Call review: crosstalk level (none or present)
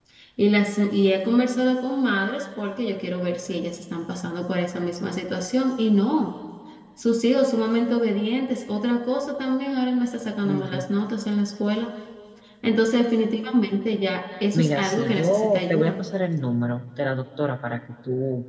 present